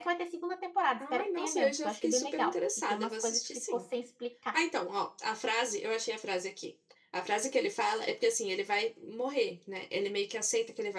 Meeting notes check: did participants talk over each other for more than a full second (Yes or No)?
Yes